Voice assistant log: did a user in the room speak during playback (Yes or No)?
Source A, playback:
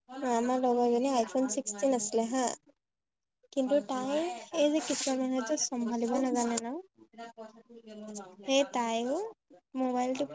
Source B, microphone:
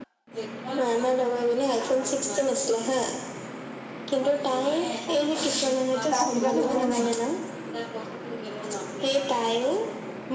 Yes